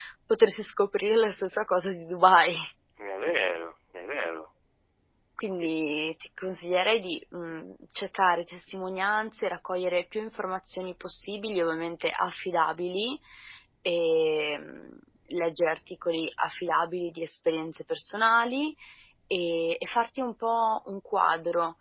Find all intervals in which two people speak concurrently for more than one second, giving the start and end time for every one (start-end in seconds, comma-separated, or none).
none